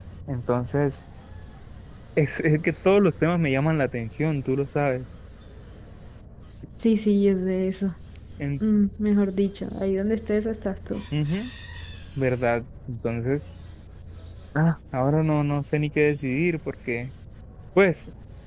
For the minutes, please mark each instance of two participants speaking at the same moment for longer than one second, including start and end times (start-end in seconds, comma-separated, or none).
none